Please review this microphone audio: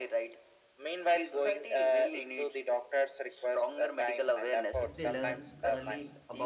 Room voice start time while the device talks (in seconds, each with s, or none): 4.8 s